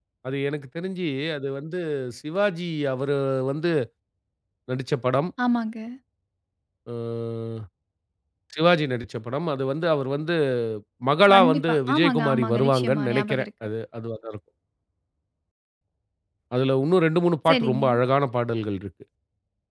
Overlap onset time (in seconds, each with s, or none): 11.3 s